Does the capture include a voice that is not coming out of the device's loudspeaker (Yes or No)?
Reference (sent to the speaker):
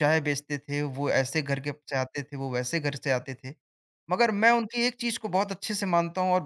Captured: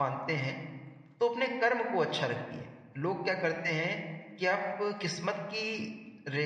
Yes